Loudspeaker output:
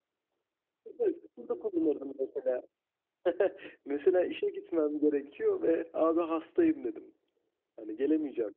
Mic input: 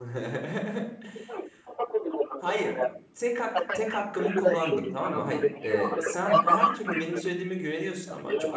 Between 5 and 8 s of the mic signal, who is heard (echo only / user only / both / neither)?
both